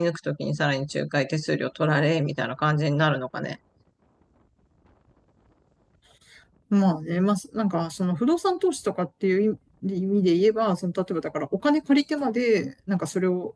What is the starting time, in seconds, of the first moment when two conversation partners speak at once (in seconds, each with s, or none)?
none